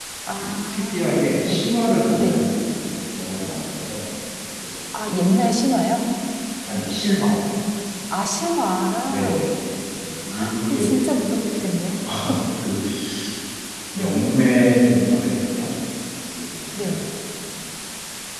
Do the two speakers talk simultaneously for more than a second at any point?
Yes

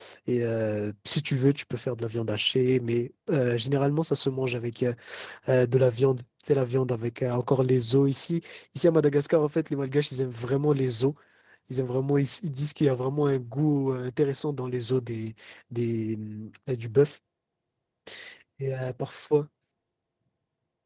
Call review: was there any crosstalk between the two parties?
No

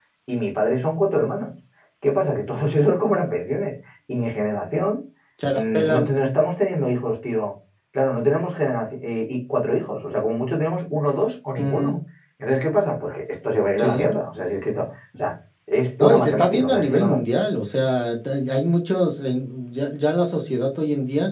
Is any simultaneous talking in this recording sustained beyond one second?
Yes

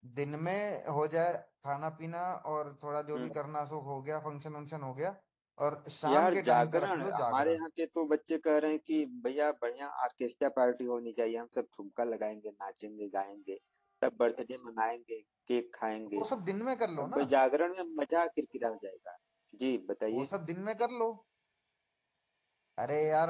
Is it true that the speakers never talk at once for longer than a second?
No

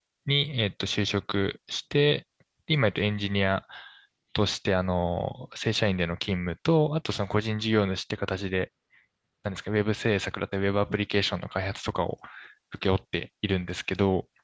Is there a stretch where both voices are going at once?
No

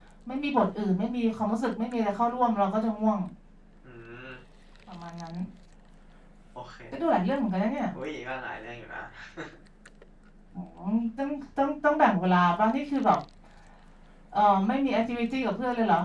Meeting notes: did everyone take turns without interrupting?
Yes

